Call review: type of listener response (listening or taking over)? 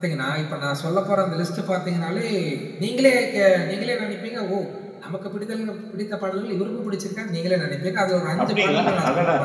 taking over